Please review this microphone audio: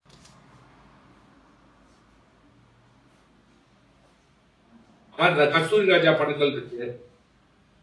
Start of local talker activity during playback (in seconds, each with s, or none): 5.2 s